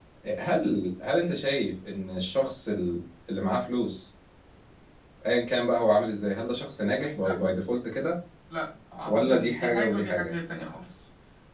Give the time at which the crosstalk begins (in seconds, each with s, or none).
9.1 s